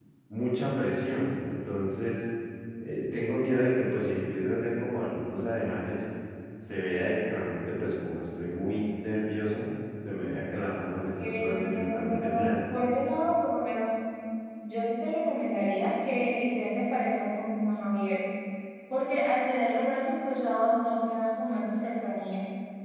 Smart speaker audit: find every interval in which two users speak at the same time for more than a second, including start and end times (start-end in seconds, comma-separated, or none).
11.2-12.5